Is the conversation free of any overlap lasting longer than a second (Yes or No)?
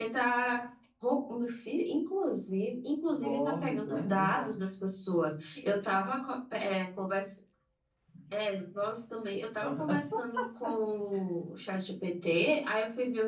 No